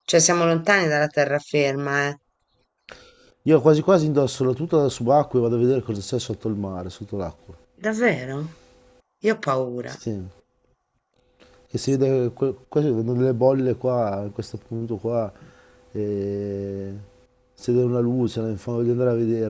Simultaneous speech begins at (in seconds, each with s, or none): none